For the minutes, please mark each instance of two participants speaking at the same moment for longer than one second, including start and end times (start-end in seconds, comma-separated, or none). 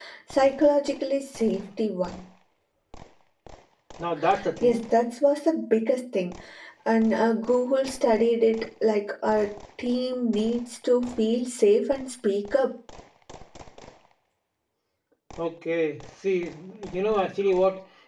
none